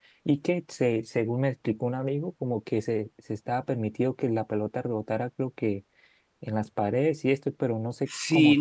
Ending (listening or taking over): taking over